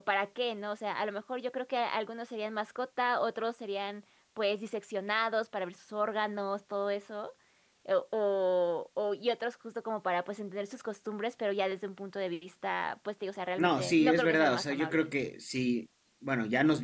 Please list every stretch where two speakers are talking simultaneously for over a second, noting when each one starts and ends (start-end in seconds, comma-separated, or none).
13.6-15.1